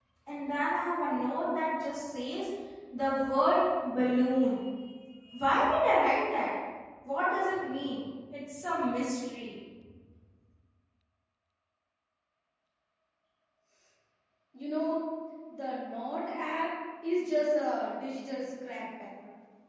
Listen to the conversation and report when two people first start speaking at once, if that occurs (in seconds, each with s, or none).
none